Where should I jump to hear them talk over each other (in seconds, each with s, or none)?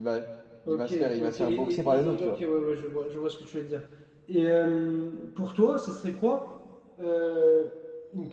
0.7 s